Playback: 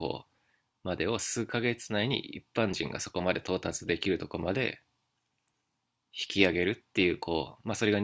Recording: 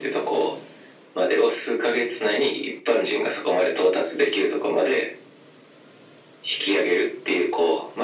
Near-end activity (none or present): none